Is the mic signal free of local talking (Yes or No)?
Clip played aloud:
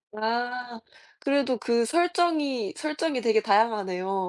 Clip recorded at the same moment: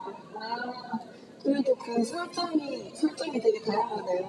Yes